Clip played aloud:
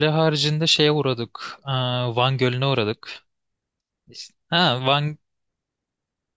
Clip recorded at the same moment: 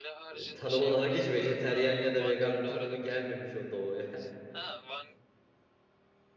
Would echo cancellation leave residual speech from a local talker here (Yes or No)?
Yes